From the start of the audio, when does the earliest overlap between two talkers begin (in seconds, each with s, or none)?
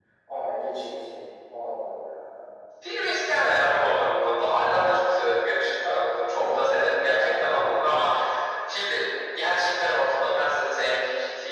6.3 s